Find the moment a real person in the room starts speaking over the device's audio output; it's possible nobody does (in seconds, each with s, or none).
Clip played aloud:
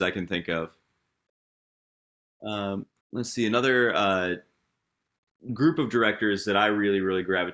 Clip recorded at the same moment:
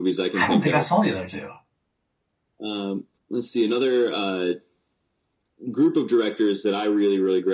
0.4 s